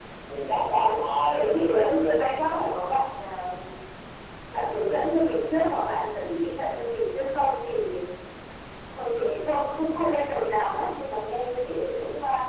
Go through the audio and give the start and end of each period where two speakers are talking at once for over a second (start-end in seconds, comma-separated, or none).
0.7-2.2